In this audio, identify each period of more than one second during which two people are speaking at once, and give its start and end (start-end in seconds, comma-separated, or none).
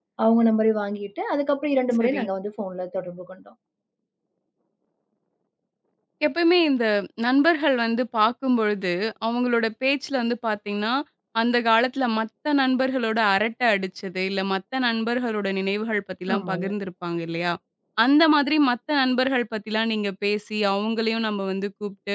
none